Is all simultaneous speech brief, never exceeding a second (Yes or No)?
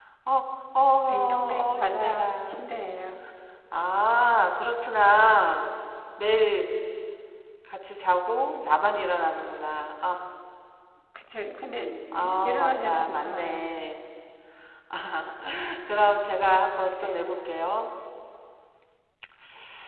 No